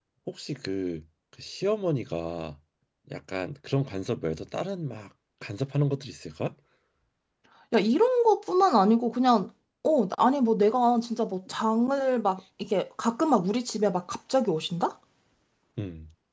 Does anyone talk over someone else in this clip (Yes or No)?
No